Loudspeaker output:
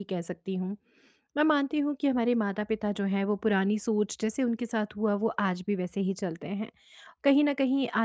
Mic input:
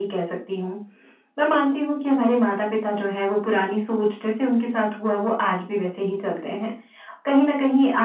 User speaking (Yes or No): No